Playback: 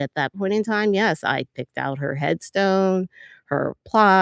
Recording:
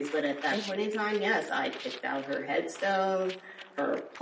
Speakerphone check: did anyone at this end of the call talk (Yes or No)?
Yes